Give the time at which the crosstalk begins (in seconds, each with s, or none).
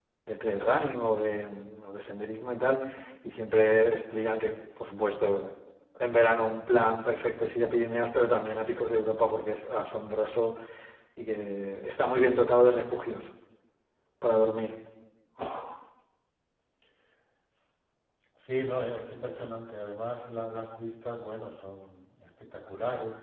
none